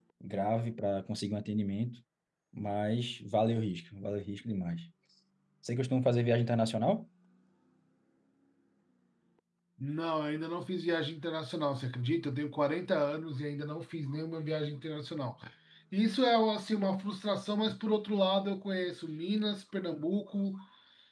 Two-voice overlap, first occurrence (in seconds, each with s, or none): none